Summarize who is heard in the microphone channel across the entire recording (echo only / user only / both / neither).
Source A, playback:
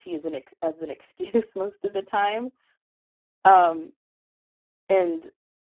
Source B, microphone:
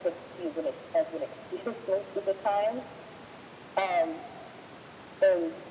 echo only